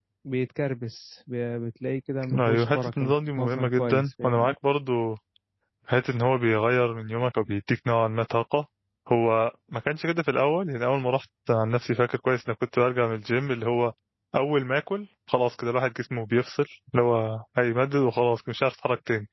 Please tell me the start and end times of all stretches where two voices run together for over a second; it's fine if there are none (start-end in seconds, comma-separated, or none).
2.3-4.5